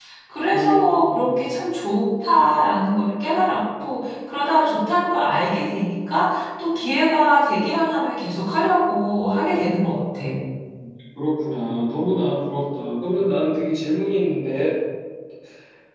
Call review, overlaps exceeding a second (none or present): none